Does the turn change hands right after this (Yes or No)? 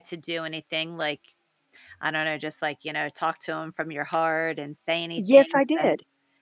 Yes